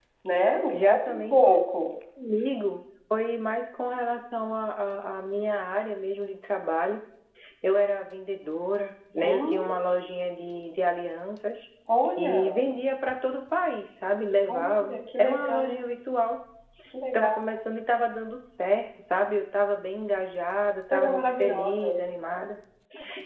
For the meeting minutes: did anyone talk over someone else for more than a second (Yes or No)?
Yes